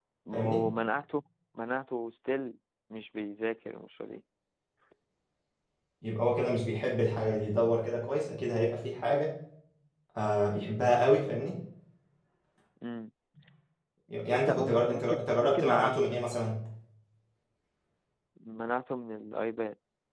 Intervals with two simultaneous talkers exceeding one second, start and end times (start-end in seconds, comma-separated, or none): 14.3-15.9